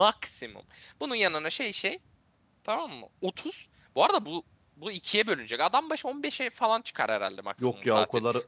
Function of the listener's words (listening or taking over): taking over